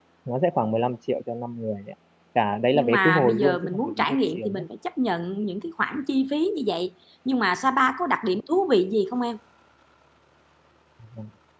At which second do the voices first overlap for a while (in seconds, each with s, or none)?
2.7 s